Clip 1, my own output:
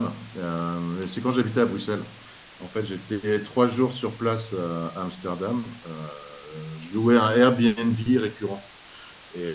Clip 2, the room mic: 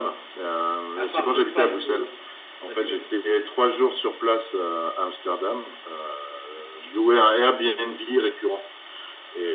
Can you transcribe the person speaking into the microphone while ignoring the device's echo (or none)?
à part de pipe, euh, vas-y vas-y.